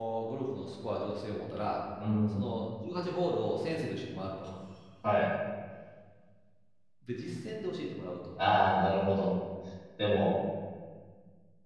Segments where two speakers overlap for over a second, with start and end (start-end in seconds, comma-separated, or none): none